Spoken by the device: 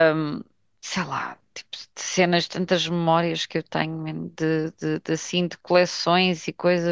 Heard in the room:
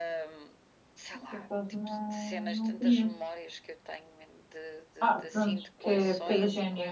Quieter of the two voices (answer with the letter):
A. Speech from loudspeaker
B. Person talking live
A